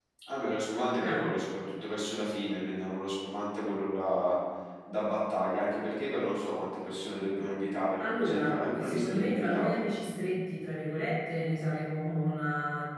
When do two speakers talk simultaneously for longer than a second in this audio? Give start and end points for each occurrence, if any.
8.2-9.8

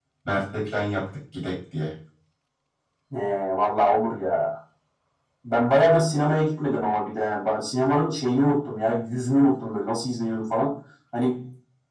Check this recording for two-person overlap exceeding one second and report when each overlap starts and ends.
none

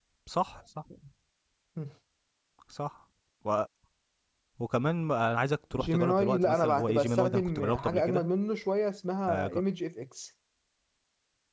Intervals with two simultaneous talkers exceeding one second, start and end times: 5.8-8.2

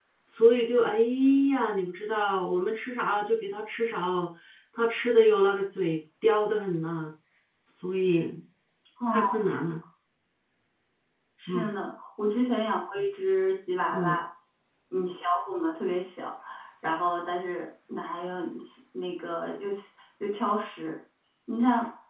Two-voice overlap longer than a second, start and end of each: none

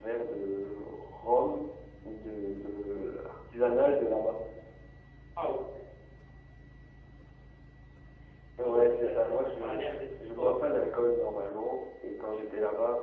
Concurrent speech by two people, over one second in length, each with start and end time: 8.6-9.8

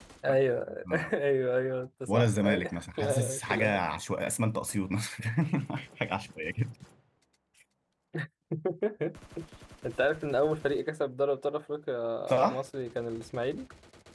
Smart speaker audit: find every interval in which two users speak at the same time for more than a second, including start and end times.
2.1-3.8

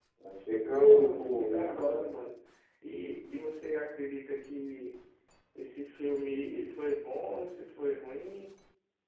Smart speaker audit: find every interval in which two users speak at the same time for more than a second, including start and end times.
0.7-2.0

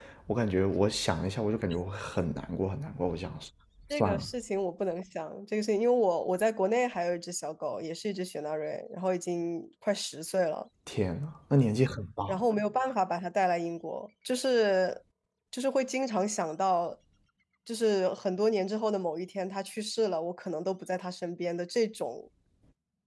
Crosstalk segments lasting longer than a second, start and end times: none

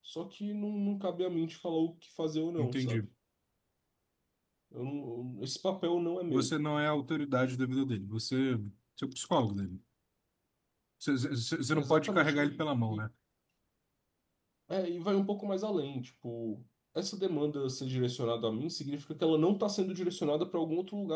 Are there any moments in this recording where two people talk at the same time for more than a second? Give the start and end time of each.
11.7-13.0

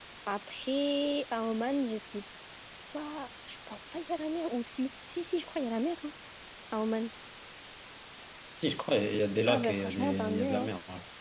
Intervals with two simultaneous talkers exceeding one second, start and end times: 9.5-10.7

